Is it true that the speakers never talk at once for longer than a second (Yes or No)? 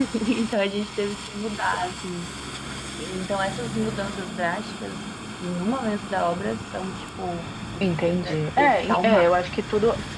No